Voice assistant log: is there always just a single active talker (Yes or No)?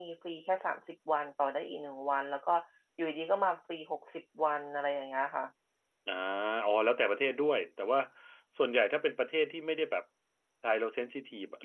Yes